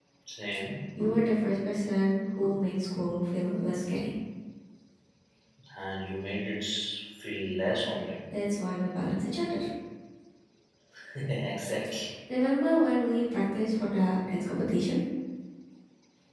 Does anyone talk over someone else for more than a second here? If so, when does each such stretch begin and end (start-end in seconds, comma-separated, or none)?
none